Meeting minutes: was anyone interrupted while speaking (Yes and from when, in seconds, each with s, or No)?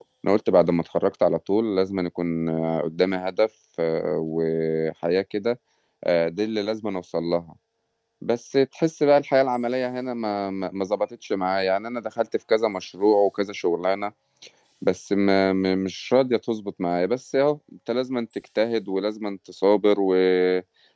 No